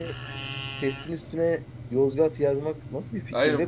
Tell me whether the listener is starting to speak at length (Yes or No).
Yes